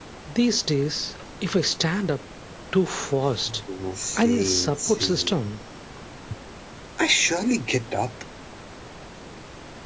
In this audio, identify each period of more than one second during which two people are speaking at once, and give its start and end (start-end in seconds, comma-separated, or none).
4.2-5.5